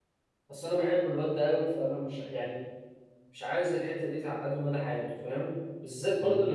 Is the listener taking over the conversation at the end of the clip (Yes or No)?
No